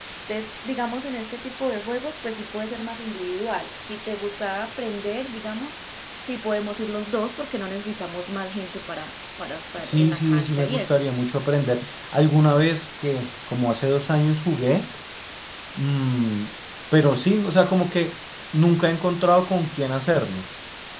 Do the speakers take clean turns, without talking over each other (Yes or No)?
No